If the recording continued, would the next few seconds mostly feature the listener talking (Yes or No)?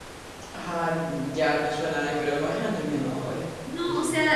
Yes